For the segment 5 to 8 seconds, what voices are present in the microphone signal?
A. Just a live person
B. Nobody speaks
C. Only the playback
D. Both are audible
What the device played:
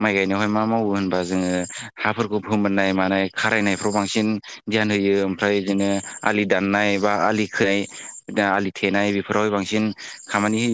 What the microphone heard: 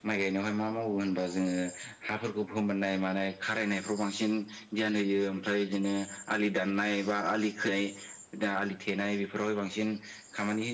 C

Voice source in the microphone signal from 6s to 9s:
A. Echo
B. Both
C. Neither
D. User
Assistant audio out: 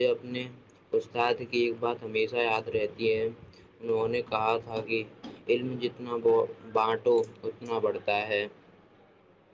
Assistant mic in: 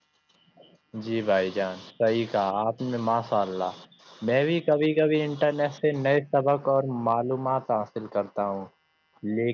D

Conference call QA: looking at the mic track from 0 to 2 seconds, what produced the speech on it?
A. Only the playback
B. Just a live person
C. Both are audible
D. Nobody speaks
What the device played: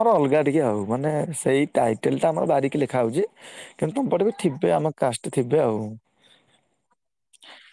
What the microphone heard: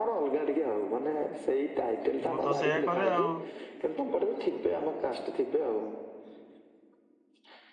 A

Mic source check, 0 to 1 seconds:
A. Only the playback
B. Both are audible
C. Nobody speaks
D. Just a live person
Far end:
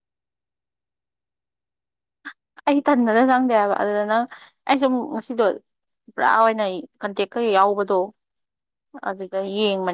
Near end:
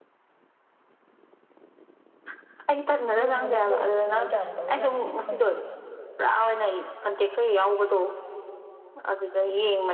C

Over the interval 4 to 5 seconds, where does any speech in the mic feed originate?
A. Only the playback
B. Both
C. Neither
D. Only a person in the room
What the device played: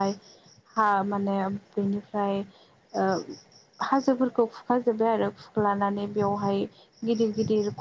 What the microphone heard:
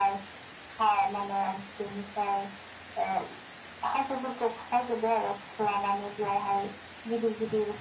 A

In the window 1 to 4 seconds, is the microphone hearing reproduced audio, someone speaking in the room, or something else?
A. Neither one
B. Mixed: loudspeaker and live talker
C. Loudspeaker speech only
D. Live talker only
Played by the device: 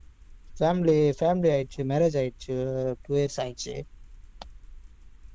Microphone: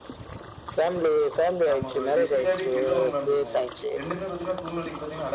B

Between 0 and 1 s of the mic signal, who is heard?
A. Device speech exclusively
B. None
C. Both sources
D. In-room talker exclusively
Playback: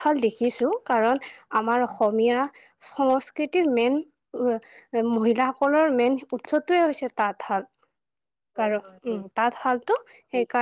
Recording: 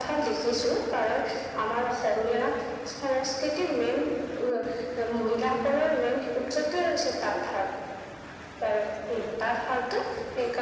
A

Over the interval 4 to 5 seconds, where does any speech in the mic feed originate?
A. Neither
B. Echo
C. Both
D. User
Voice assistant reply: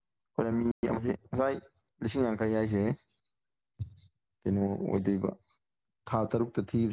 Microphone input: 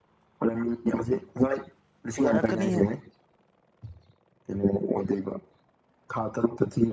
B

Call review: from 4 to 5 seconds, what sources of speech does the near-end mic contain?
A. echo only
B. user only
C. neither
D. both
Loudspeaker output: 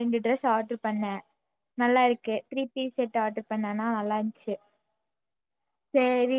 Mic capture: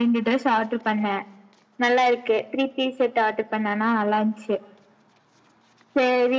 A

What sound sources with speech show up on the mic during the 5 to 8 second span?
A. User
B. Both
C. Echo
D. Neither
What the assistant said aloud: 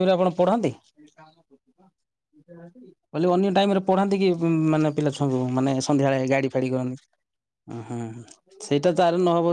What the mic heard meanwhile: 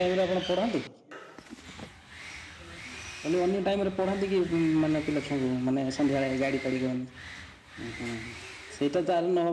C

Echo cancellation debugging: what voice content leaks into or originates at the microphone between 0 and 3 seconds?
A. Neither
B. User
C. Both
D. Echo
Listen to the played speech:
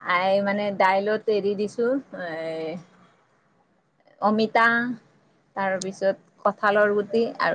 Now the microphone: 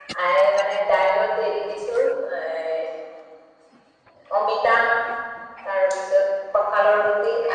D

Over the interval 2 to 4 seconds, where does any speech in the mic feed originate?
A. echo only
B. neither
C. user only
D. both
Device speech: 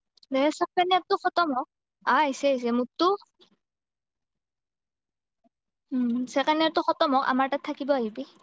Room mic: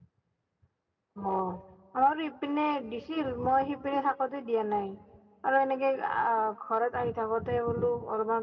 C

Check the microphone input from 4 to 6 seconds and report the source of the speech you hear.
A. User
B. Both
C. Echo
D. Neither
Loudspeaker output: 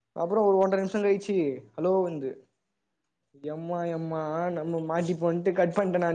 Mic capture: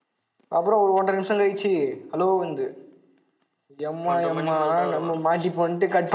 B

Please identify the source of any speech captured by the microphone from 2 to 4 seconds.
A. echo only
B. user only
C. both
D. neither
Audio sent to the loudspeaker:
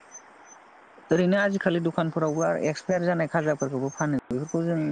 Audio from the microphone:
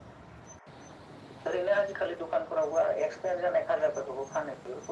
A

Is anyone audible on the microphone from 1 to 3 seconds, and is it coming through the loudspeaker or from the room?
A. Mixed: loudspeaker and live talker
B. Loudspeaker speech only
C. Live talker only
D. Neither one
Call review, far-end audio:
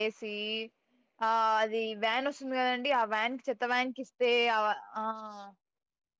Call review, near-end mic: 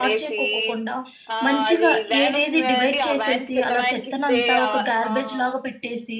A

